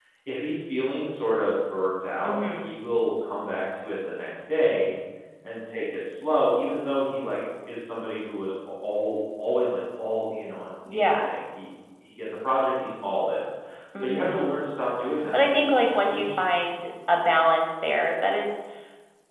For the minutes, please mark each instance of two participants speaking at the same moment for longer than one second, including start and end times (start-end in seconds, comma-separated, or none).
15.3-16.6